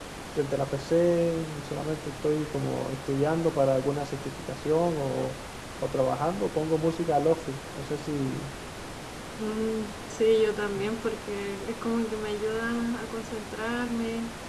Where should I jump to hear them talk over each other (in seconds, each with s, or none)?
none